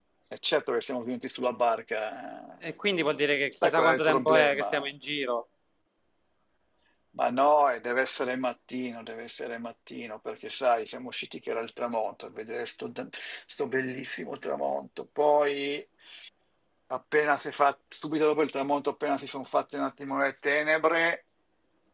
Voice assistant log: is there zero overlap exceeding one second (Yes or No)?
No